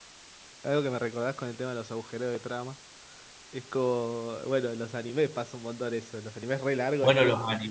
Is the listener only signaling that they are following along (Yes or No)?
No